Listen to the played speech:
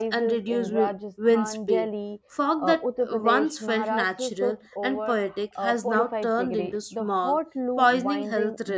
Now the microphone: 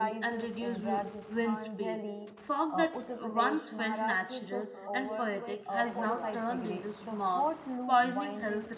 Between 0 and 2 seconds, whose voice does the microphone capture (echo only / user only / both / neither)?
echo only